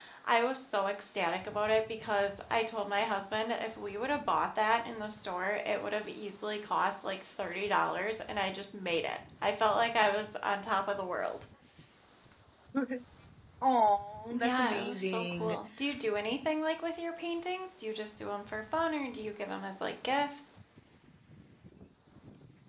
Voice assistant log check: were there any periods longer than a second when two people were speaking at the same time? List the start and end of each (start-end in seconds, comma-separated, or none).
14.4-15.6